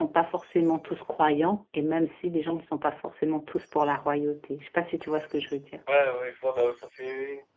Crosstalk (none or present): none